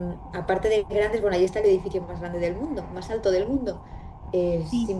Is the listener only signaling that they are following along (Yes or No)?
Yes